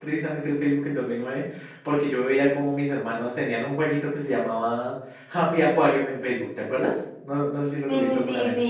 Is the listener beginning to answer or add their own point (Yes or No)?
Yes